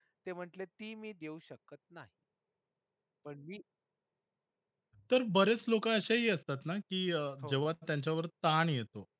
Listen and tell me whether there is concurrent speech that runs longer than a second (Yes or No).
No